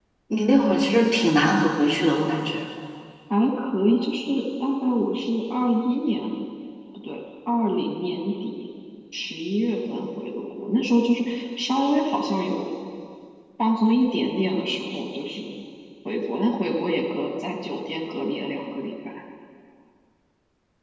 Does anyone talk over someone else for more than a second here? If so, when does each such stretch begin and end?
none

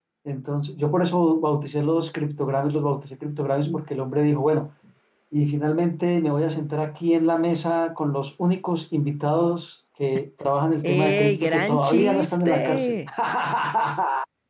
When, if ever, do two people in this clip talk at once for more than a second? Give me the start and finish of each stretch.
10.8-13.0

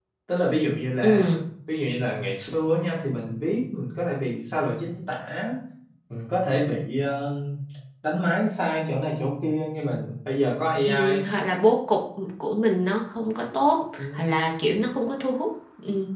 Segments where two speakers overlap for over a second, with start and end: none

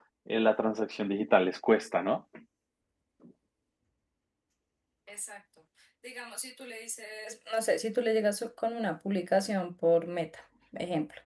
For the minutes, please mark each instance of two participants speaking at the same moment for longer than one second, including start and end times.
none

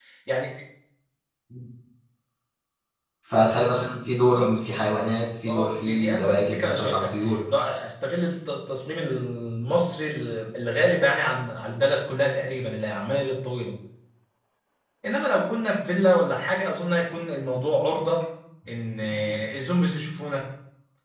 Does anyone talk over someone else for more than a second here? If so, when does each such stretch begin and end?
5.5-7.1

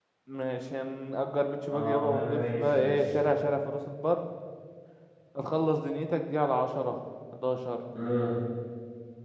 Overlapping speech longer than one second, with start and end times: 1.7-3.0

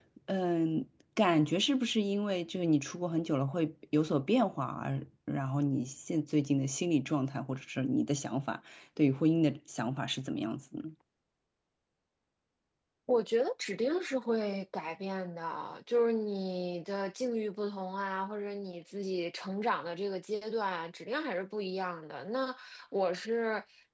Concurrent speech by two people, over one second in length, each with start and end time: none

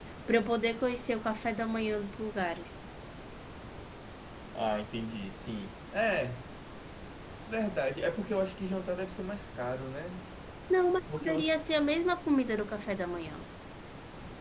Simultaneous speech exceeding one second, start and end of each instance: none

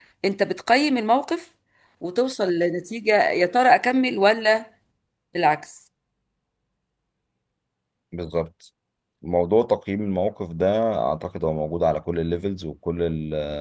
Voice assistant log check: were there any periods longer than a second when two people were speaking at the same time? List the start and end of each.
none

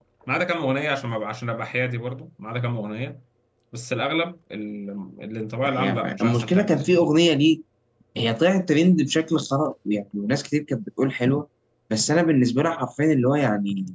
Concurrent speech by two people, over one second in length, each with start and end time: 5.6-7.0

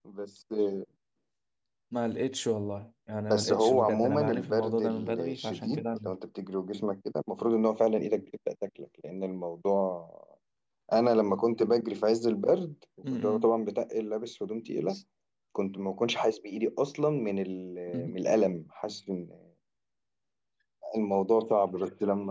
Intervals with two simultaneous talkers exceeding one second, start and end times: 3.3-6.1

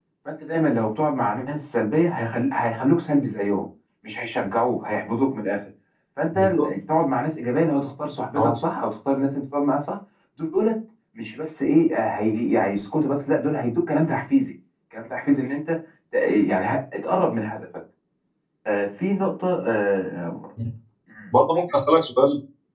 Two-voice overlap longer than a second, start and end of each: none

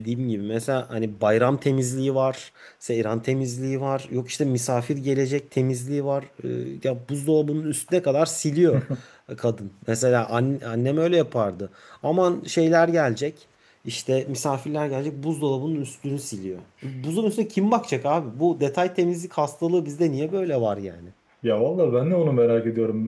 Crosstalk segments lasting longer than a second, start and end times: none

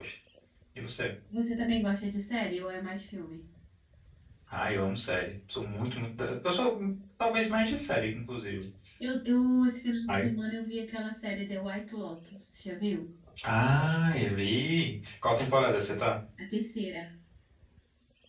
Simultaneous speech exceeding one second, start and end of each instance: none

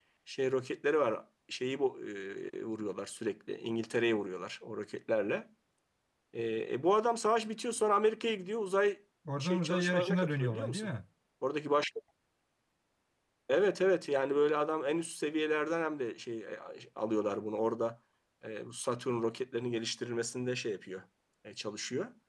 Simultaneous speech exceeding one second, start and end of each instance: 9.4-10.9

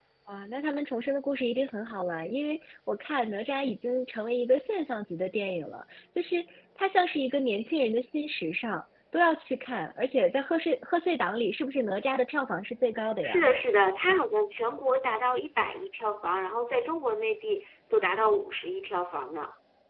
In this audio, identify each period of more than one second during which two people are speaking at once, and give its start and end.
none

